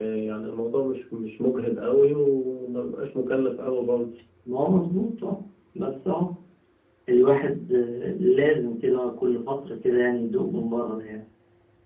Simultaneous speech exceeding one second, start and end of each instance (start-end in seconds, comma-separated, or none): none